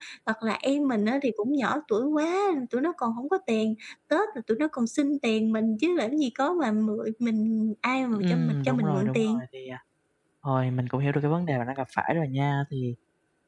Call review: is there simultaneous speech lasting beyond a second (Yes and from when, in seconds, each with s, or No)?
Yes, from 8.1 s